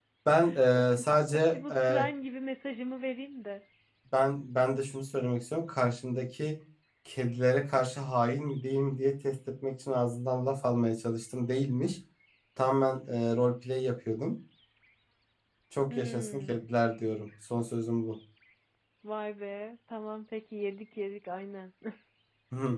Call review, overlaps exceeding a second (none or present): present